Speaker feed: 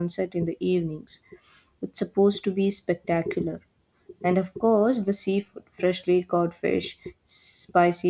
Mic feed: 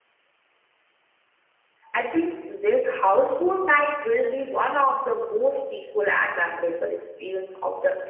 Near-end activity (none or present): present